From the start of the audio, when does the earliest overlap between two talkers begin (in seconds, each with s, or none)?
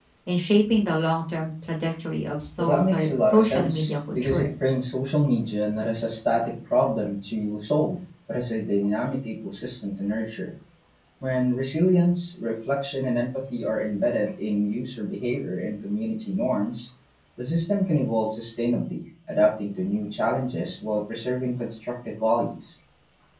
2.6 s